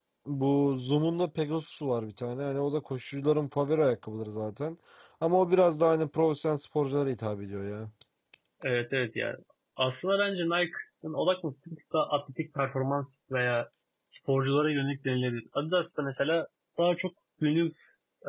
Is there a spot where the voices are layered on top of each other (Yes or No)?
No